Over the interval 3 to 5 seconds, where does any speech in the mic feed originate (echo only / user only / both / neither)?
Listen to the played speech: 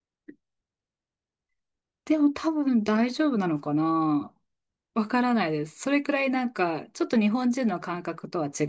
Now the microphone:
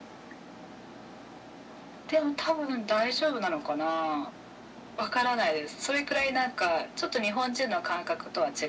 echo only